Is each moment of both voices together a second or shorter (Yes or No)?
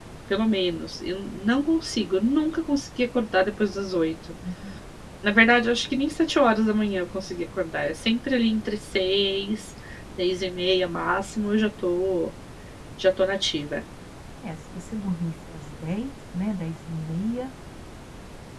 Yes